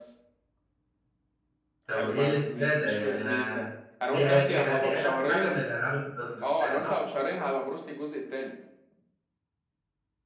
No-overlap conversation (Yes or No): No